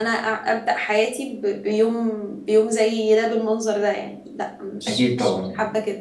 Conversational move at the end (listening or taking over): taking over